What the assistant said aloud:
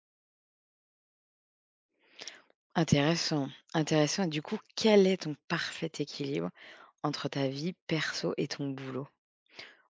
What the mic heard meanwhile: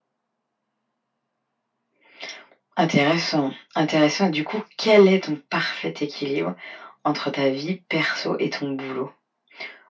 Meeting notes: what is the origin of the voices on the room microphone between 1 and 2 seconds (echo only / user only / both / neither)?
neither